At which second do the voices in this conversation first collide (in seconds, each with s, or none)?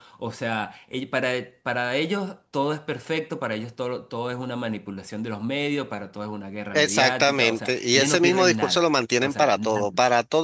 6.7 s